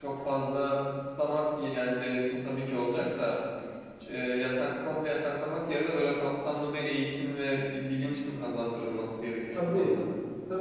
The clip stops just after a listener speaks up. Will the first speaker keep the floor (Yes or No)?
No